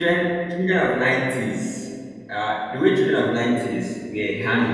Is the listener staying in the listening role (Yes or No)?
Yes